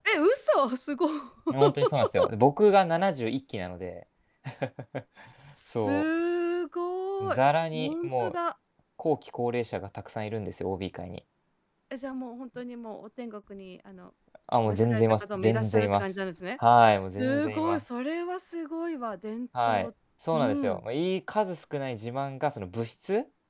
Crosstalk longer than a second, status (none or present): present